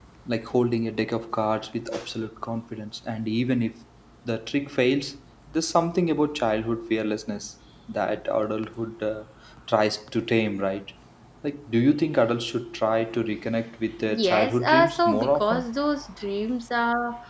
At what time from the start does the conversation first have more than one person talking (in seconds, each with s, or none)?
14.1 s